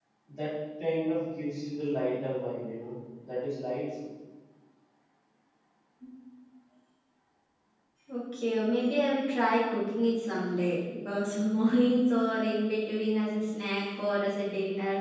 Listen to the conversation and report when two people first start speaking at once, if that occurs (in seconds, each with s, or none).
none